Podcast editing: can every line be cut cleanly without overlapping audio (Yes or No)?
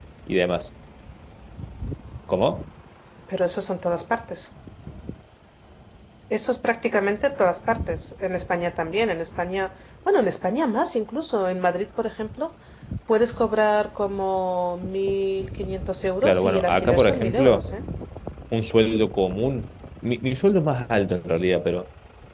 No